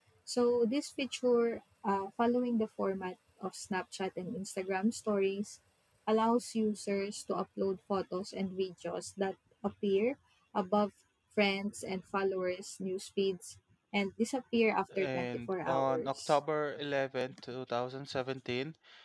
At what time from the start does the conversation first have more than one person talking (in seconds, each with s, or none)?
14.9 s